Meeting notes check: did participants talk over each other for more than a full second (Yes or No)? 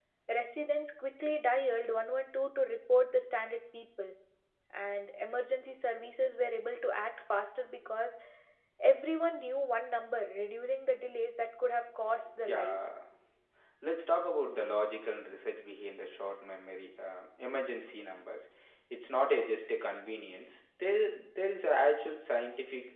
No